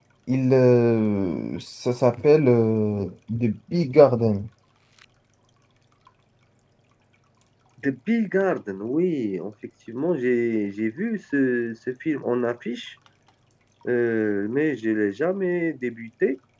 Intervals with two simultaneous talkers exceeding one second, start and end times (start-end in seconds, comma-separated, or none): none